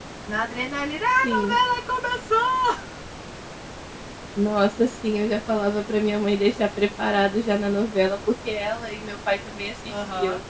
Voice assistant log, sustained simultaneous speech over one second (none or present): none